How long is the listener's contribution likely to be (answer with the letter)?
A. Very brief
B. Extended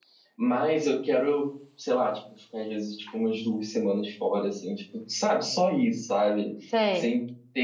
A